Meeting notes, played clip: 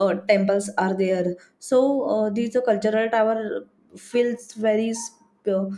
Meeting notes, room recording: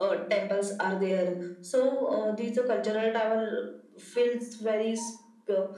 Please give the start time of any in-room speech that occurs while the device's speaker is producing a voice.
none

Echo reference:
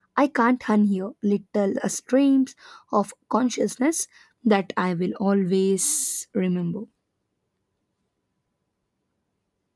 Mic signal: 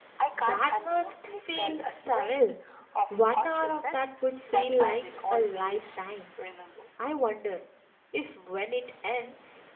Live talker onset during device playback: 0.4 s

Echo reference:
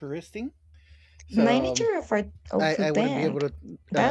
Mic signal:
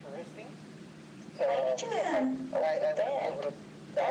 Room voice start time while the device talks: 1.9 s

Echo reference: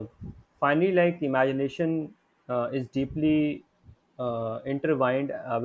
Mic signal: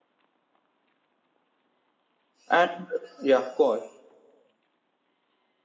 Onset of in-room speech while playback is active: 2.5 s

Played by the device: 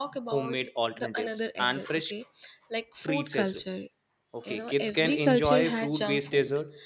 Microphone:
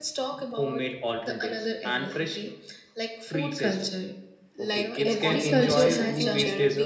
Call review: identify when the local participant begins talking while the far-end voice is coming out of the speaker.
4.6 s

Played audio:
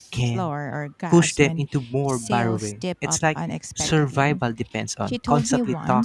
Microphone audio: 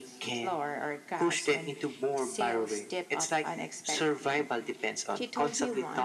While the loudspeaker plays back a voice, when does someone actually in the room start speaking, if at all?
none

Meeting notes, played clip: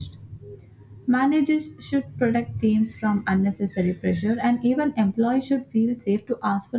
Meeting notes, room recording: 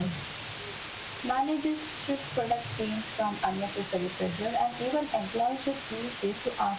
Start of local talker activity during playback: none

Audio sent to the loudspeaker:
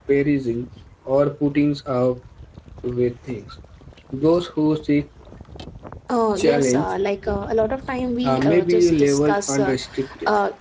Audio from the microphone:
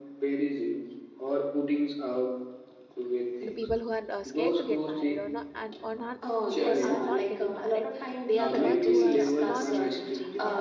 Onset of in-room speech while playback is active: 3.4 s

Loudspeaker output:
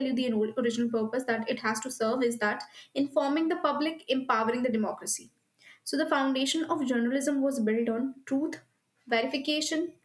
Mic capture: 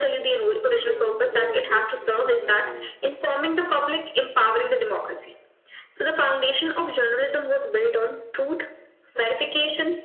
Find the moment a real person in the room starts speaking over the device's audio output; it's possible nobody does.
0.6 s

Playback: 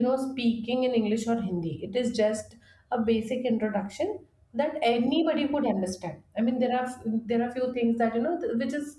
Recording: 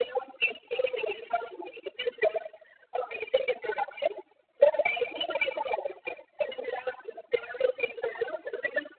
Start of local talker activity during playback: none

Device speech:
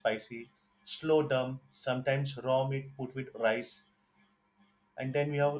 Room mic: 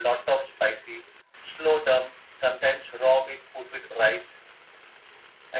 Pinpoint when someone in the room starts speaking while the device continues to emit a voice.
none

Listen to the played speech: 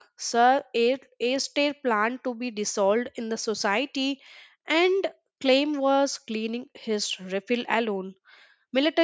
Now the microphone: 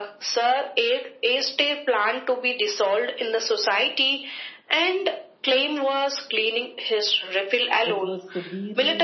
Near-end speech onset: 7.8 s

